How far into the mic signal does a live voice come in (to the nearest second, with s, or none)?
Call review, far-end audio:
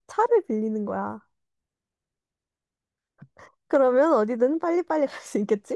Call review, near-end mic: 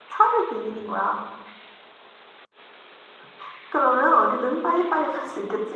none